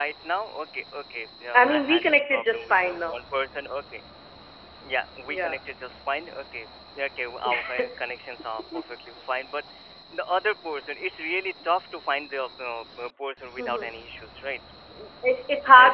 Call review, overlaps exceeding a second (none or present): present